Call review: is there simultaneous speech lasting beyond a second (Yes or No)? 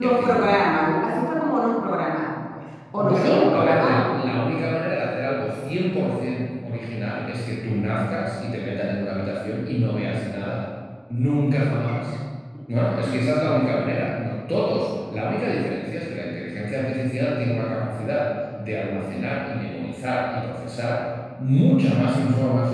Yes